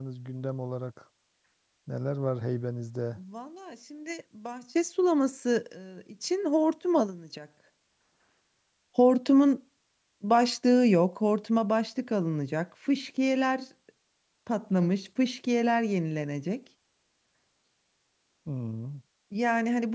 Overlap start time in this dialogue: none

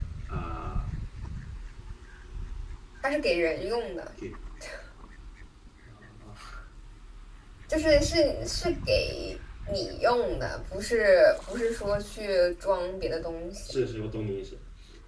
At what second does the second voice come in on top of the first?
none

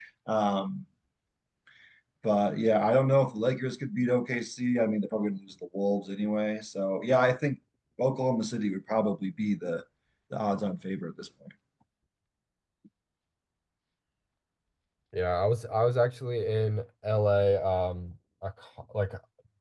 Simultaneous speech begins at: none

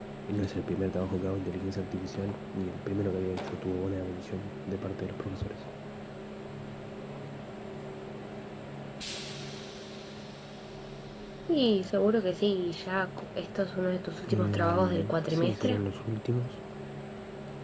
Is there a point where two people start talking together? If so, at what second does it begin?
14 s

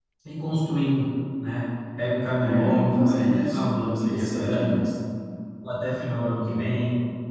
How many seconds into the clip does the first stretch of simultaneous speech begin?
2 s

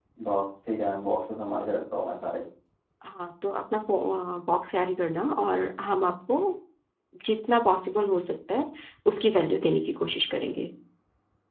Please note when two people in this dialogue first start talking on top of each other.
none

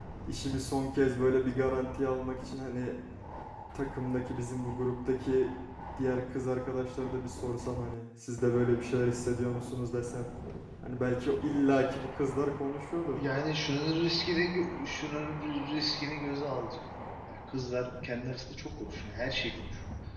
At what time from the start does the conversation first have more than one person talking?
none

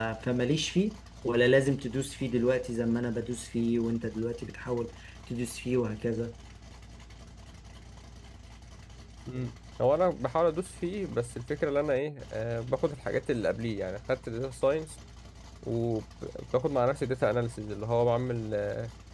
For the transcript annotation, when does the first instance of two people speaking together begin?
none

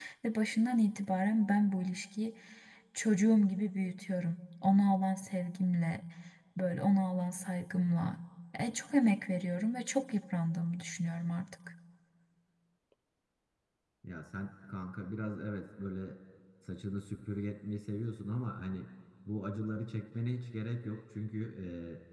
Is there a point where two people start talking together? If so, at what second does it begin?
none

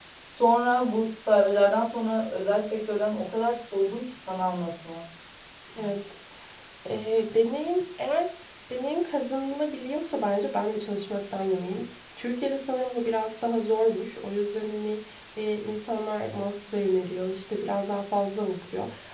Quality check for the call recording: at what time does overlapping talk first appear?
none

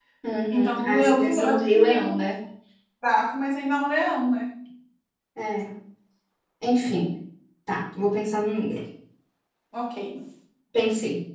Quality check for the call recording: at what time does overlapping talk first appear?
1 s

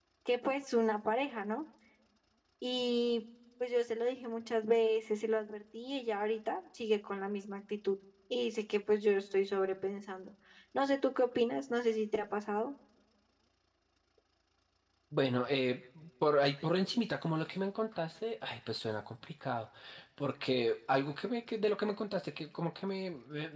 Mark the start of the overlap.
none

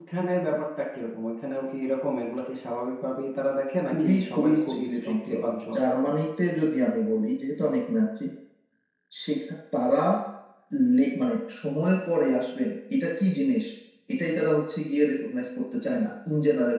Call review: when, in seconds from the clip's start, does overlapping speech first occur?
4 s

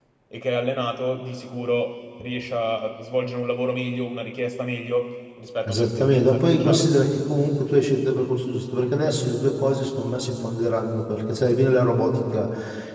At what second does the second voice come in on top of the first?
6 s

